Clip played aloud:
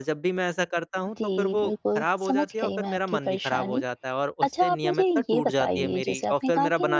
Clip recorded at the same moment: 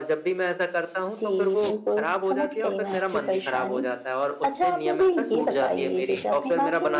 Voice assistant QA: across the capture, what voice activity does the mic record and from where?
echo only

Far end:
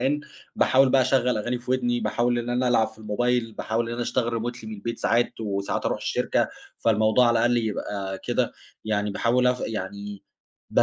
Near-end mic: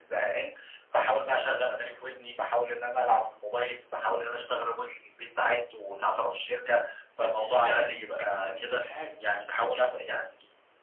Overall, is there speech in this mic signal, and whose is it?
both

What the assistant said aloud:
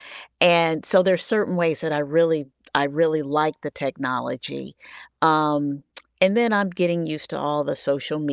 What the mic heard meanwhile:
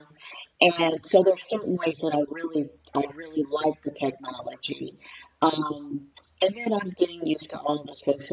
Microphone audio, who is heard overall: echo only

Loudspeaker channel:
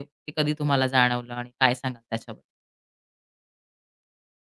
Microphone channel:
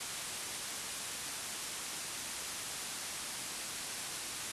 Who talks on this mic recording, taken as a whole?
neither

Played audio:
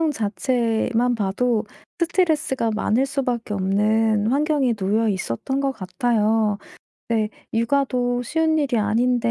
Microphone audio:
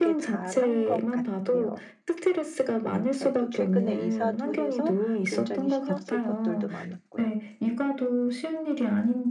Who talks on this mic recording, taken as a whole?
both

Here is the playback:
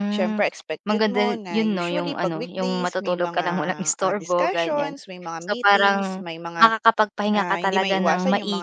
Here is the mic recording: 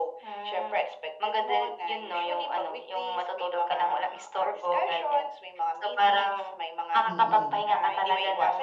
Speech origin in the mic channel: both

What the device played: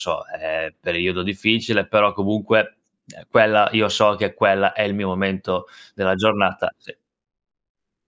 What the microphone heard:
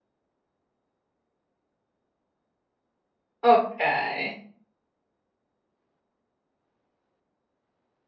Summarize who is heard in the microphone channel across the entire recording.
user only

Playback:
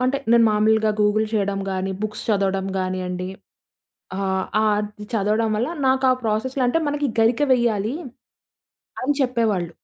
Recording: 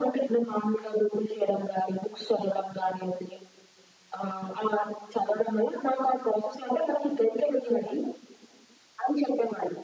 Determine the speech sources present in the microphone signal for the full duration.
echo only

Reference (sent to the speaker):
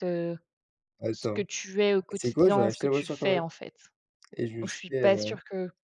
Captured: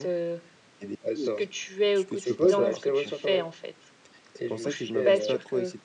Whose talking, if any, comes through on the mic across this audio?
both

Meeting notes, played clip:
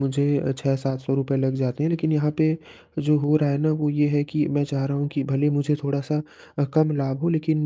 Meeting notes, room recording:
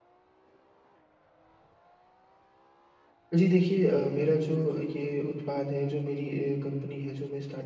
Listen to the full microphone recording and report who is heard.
user only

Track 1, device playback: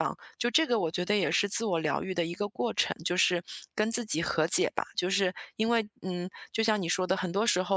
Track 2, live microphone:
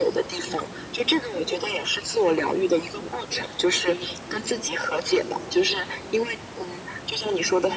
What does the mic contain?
echo only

